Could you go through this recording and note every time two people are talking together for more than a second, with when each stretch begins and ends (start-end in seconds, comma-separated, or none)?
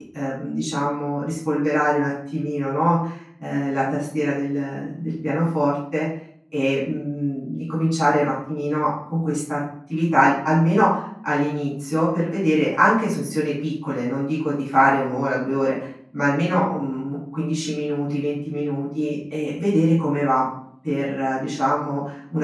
none